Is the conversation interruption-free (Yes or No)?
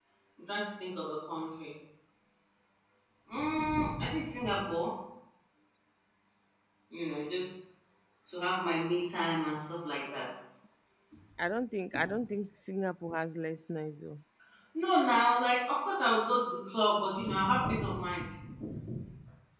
Yes